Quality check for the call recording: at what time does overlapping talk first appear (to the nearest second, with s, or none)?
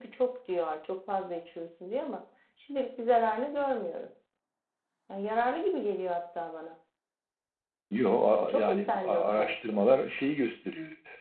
8 s